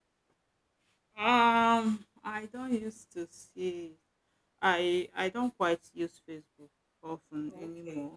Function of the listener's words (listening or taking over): taking over